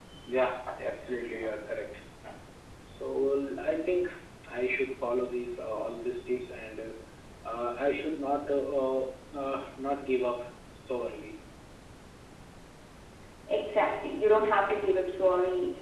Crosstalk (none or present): none